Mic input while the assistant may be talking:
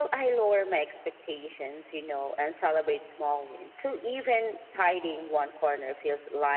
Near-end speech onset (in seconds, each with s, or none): none